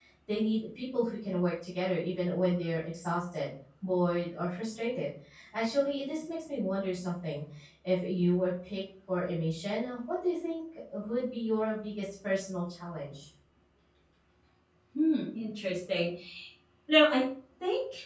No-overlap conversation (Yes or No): Yes